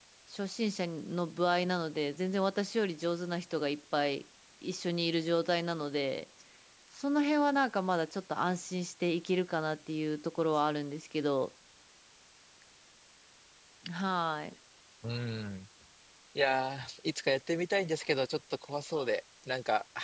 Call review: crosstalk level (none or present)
none